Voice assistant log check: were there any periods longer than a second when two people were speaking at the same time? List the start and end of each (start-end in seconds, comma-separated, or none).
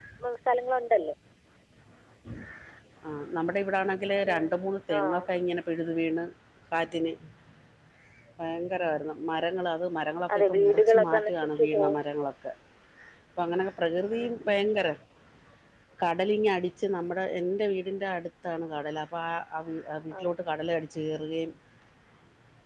10.4-12.0